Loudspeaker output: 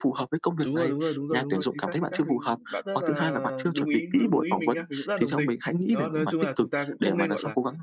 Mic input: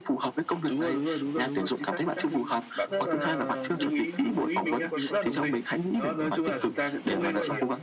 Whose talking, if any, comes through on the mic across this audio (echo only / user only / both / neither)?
both